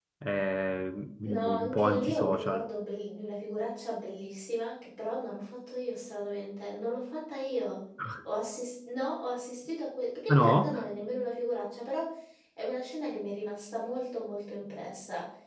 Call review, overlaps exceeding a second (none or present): present